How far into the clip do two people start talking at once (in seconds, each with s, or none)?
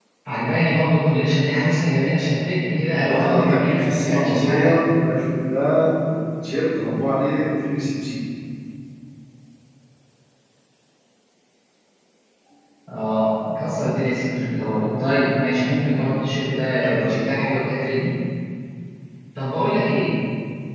2.9 s